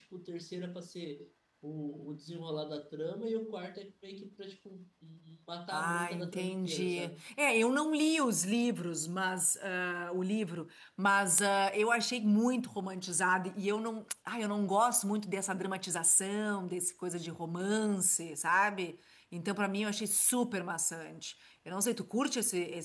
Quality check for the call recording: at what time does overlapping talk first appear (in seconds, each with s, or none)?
5.7 s